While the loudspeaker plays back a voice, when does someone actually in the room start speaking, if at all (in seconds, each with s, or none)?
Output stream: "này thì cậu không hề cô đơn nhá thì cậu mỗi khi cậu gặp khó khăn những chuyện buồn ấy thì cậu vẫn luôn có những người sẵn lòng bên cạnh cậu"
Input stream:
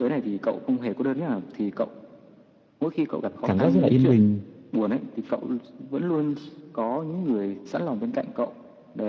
3.4 s